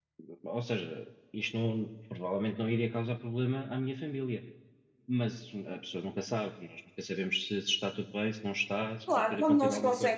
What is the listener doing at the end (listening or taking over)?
taking over